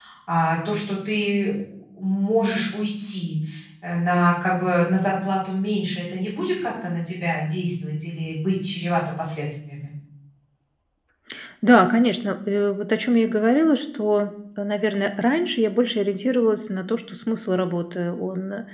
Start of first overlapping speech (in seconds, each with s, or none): none